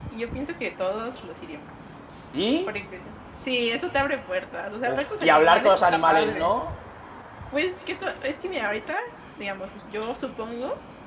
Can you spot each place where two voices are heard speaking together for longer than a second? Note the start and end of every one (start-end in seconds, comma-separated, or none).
4.8-6.5